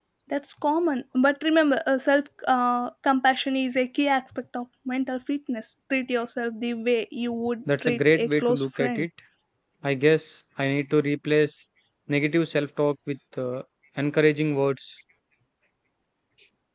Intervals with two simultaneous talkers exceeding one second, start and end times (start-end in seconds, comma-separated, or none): 7.8-9.1